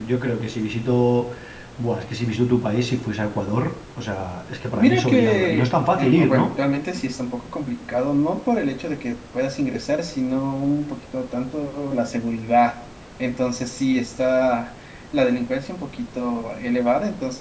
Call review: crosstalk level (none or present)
present